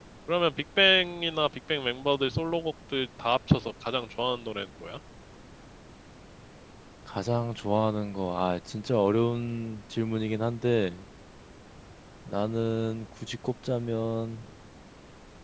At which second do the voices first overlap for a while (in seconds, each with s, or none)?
none